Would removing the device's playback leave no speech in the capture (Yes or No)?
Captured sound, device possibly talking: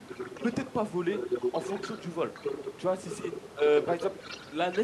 No